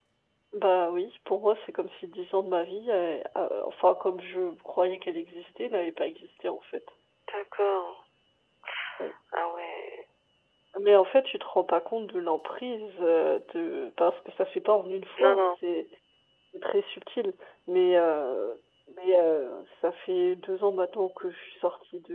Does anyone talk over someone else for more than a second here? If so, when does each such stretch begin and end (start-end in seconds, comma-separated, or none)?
none